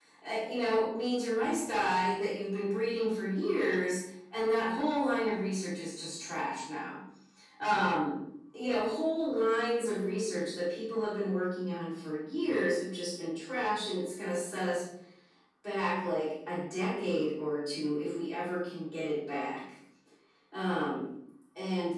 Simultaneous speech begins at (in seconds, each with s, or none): none